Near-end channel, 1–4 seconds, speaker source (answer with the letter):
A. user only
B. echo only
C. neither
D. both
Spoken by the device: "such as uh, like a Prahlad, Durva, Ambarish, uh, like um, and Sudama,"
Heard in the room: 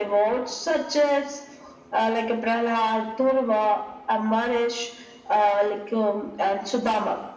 B